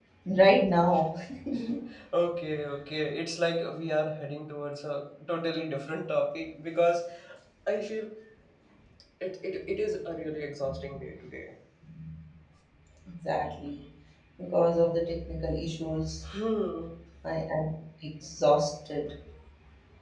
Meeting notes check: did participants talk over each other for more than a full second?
No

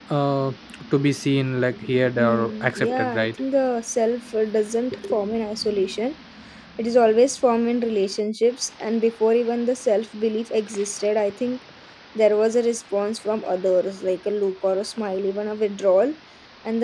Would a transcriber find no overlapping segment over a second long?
No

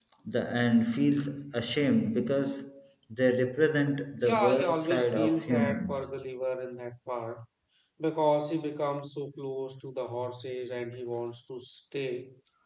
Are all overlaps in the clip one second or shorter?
No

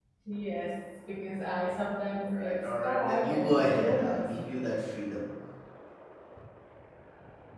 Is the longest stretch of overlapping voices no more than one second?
No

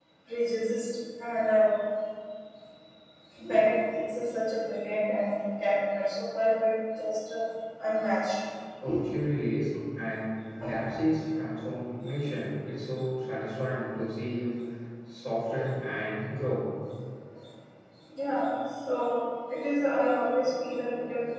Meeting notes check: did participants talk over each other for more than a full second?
No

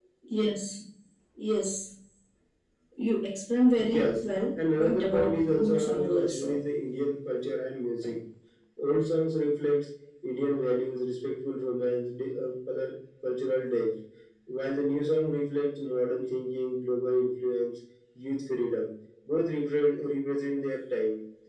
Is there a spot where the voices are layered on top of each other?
Yes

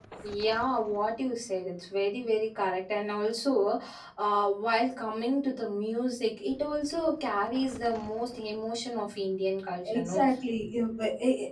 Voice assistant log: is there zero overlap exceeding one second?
Yes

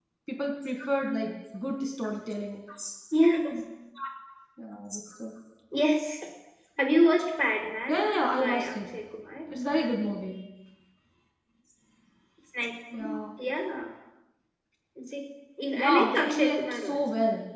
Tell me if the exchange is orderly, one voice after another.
No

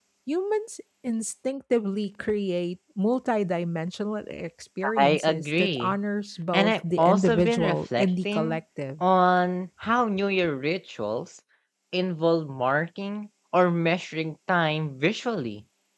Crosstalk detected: Yes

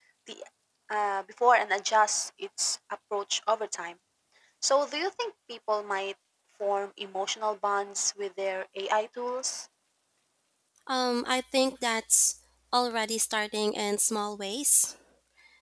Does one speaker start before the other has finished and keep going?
No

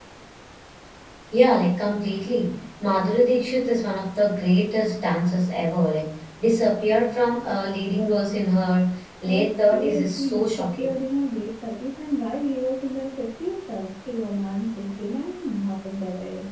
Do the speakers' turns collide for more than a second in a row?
Yes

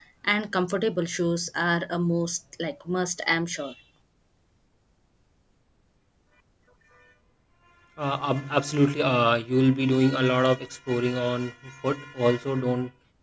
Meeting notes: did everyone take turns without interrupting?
Yes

